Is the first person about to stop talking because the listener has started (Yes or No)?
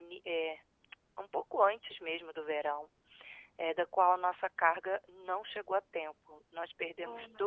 No